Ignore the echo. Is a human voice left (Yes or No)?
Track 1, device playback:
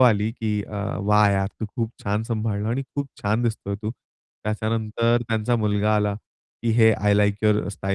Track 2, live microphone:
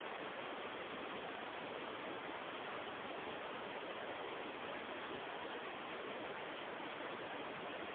No